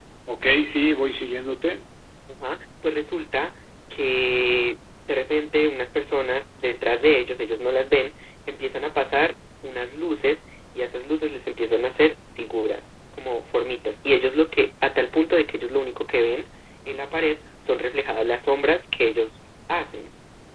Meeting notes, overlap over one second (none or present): none